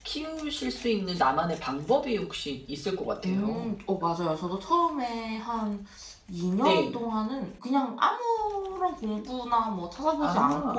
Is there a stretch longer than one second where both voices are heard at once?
No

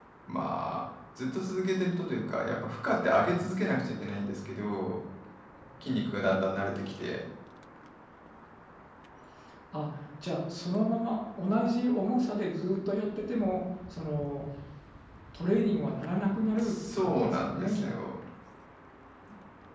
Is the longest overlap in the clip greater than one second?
Yes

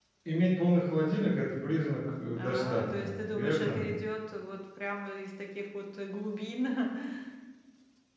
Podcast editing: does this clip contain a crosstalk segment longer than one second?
Yes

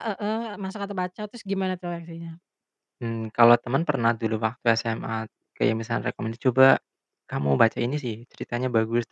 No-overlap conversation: Yes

